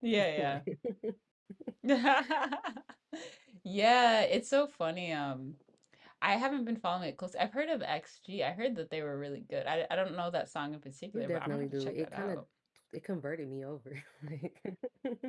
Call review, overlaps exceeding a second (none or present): present